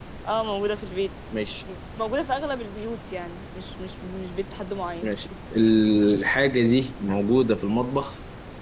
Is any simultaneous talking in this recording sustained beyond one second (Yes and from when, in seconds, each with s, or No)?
No